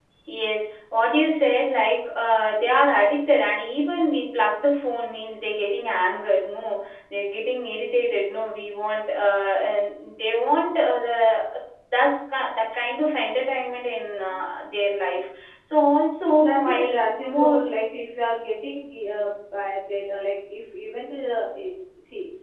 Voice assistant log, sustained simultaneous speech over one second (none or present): present